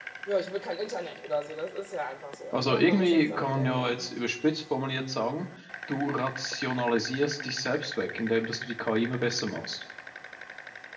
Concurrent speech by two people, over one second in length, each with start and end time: 2.5-3.9

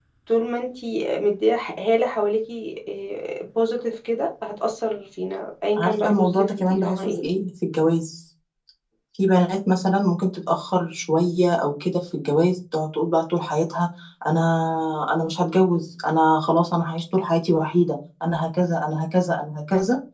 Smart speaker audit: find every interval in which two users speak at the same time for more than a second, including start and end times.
5.8-7.2

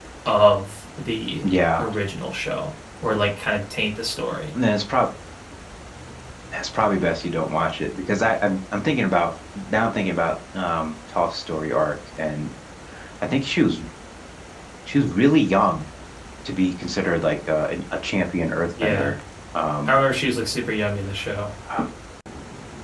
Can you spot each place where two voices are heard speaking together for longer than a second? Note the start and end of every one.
none

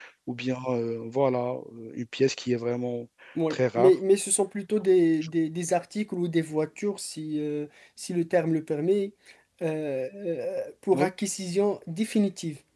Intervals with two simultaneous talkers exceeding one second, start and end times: none

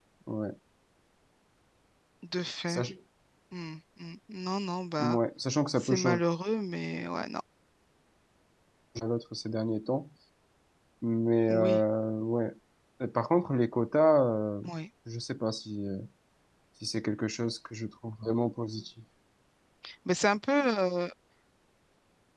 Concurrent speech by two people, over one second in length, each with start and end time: none

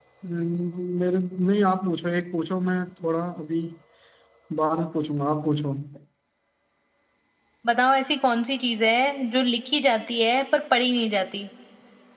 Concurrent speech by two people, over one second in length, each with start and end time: none

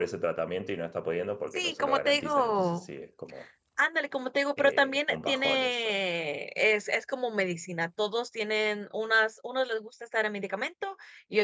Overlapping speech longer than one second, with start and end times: 1.6-2.9, 4.6-5.9

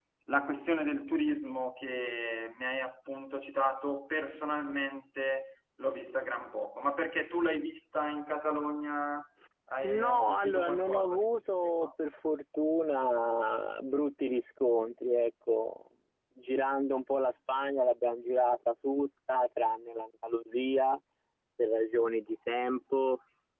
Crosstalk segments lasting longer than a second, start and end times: 9.8-11.9

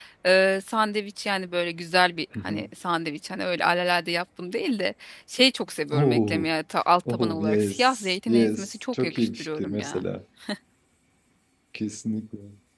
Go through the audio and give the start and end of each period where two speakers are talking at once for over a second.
7.1-10.0

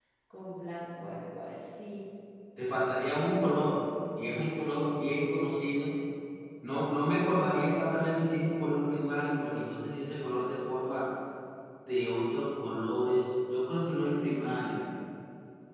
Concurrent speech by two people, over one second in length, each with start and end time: none

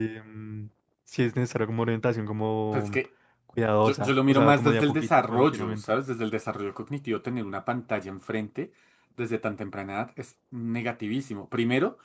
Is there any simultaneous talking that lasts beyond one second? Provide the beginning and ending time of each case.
3.9-6.0

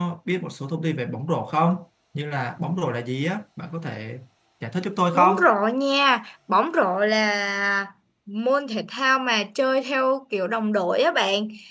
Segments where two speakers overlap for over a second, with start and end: none

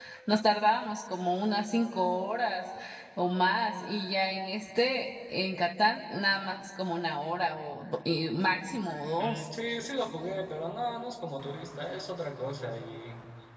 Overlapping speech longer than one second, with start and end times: none

